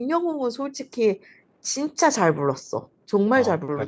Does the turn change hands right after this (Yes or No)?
Yes